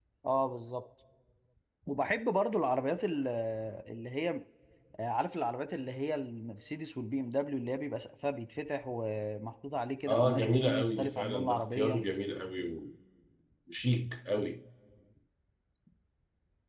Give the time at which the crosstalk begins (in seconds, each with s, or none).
10.1 s